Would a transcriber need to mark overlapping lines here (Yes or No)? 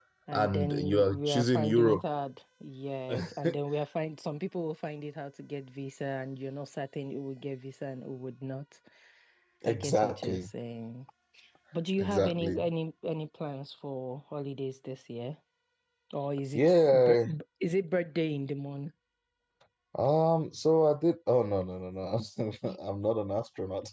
Yes